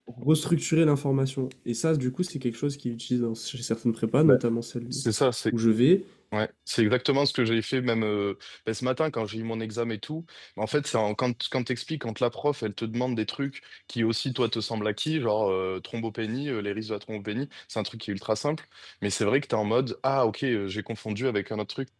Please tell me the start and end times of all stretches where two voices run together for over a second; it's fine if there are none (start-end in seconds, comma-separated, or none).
none